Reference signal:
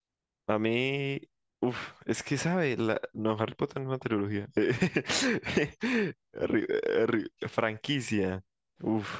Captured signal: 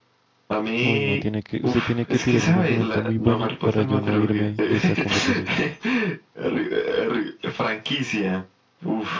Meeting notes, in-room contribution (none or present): present